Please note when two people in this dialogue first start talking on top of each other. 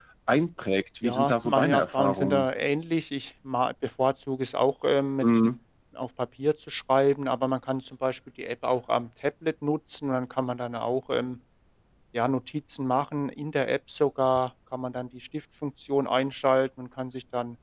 1.0 s

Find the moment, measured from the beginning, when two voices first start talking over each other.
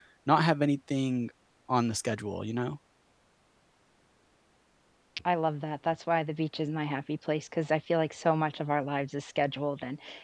none

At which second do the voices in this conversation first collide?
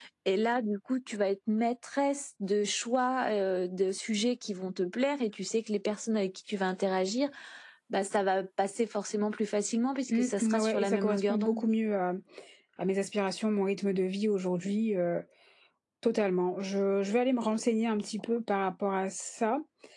10.1 s

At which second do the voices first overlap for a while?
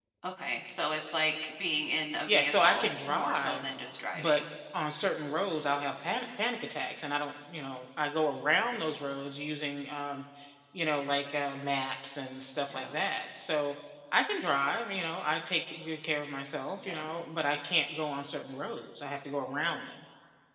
2.3 s

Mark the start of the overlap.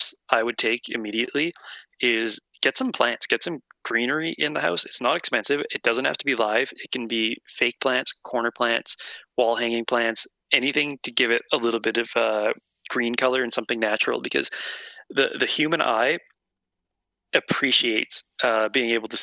none

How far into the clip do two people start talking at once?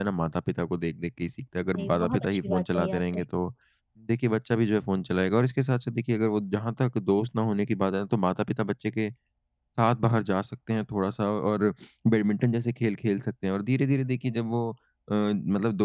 1.8 s

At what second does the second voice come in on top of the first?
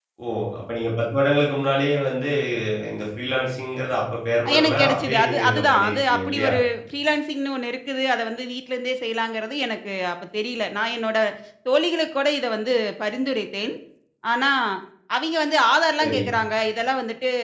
4.5 s

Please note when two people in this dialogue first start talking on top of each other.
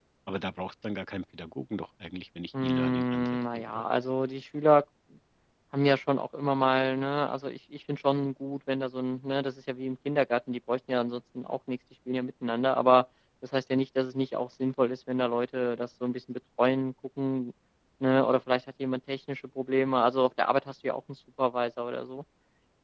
2.5 s

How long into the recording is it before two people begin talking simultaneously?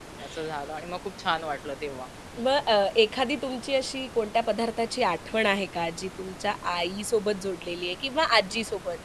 none

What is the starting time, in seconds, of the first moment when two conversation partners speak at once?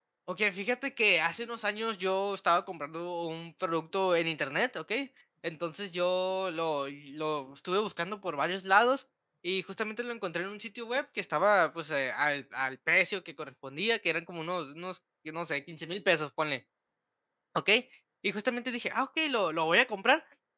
none

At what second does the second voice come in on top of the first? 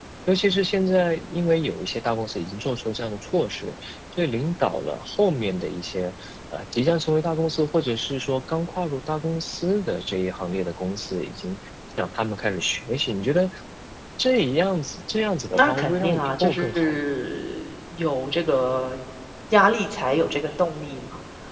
15.5 s

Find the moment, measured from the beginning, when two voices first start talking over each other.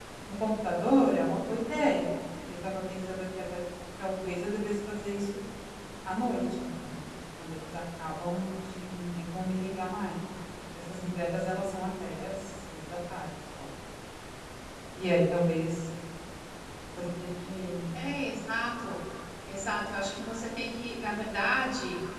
none

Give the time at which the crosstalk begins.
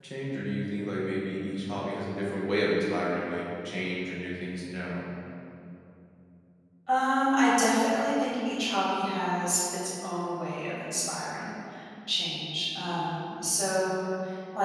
none

